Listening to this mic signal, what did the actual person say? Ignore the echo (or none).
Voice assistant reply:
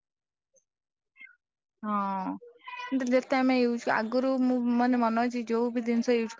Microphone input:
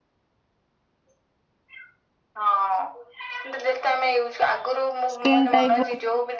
ସ୍କିନ୍ ଟାଇପ